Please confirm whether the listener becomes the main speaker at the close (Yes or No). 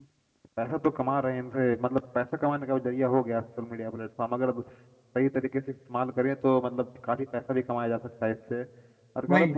No